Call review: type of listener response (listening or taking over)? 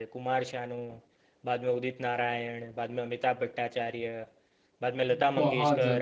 taking over